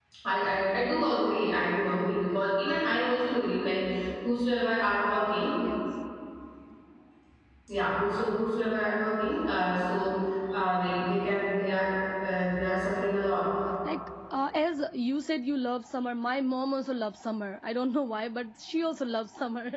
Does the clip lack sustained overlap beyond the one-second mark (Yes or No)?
Yes